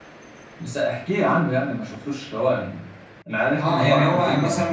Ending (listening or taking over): taking over